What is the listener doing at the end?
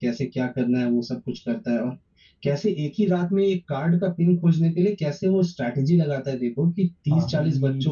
listening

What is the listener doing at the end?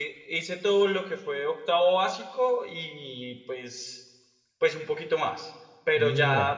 listening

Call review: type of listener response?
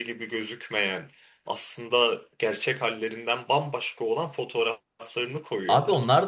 taking over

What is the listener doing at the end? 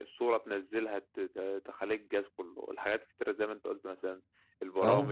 listening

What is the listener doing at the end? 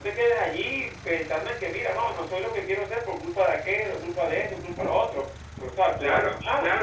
taking over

